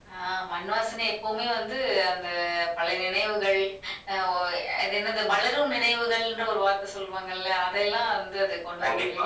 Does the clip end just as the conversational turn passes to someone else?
Yes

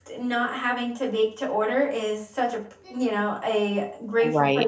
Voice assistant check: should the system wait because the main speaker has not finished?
Yes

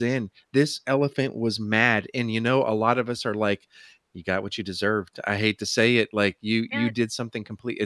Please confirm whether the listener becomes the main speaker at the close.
No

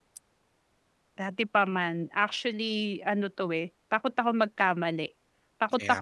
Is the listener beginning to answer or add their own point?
No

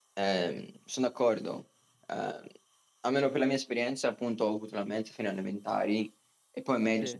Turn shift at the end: No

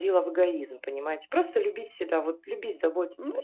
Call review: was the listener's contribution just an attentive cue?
No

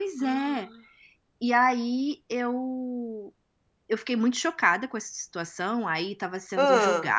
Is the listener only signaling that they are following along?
Yes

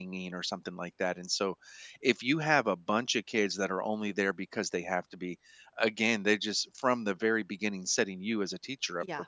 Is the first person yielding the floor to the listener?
No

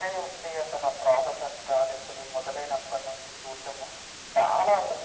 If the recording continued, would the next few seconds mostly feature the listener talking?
No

